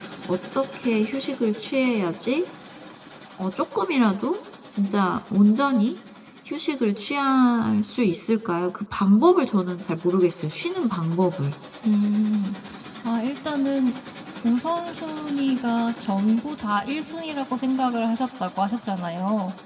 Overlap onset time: none

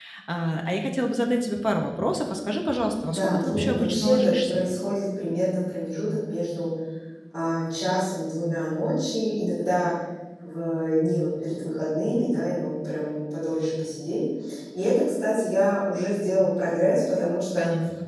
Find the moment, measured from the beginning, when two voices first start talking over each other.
3.1 s

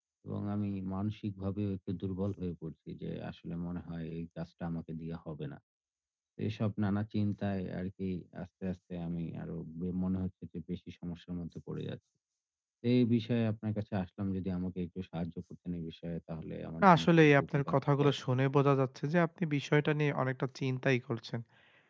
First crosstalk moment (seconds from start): 16.8 s

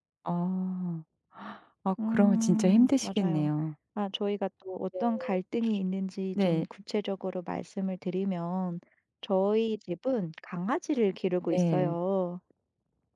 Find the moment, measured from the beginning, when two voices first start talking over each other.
2.1 s

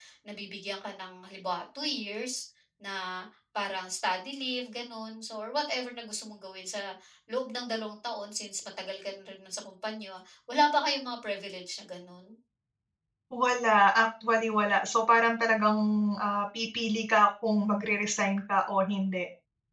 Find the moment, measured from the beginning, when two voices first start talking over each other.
none

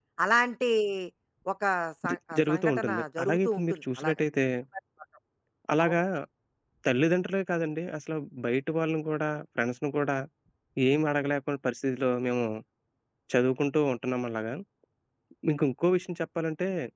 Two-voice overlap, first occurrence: 2.1 s

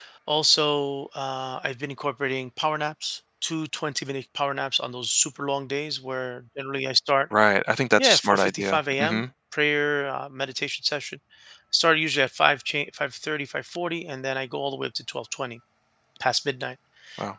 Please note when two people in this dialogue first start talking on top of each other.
8.0 s

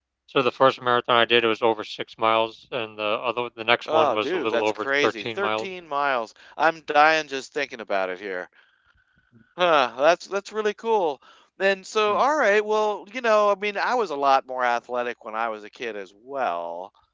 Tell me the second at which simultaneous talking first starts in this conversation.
3.9 s

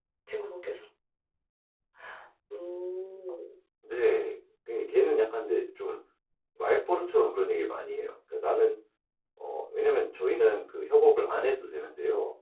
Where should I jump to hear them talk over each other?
none

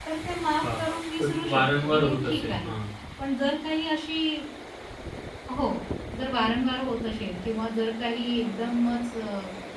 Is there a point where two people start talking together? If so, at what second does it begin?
0.6 s

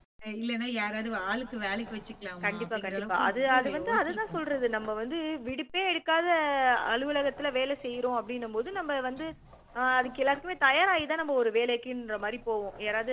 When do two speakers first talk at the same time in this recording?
2.4 s

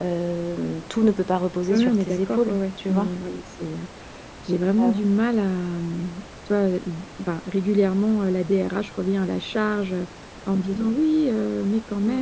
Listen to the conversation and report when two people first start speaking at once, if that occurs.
1.7 s

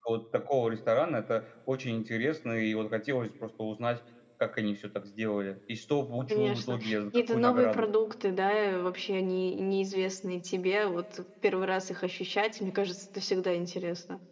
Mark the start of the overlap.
6.3 s

